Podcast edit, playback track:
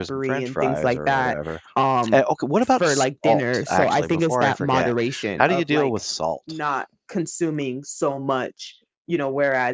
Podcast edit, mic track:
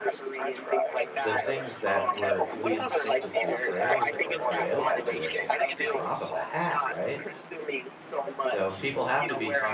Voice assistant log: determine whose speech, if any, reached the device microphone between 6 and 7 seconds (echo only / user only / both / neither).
both